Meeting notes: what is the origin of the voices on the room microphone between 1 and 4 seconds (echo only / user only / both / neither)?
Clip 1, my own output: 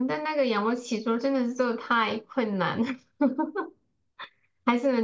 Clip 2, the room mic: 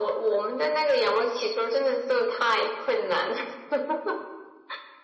echo only